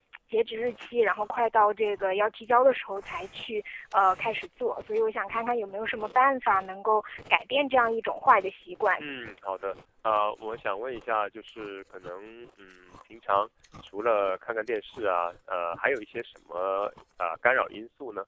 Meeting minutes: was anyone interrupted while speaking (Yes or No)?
No